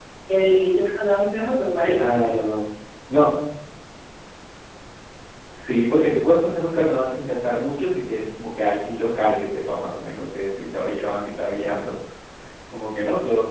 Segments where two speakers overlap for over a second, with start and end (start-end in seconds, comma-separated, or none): none